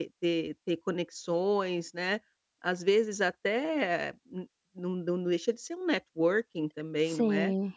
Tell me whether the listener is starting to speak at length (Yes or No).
No